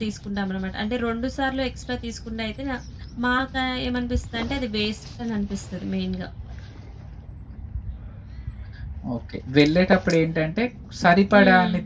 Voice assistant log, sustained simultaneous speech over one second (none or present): none